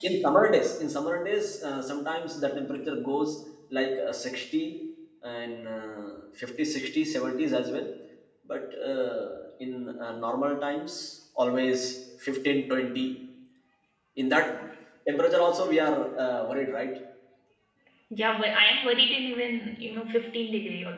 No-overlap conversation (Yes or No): Yes